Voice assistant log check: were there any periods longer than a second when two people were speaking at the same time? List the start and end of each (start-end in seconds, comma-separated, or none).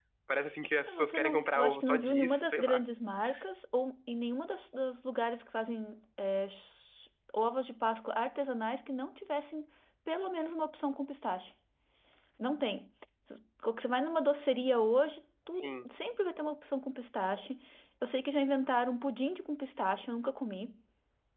0.9-2.8